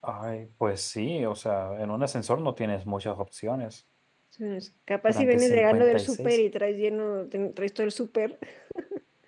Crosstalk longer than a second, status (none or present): present